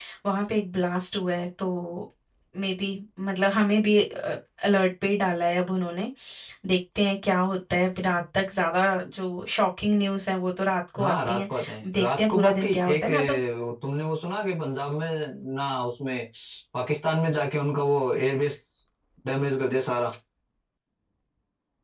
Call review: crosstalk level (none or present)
present